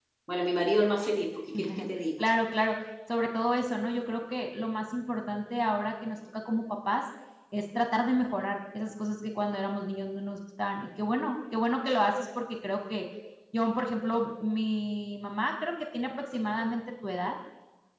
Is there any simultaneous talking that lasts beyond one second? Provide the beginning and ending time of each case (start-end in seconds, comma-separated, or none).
none